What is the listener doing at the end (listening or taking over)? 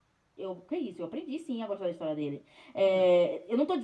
listening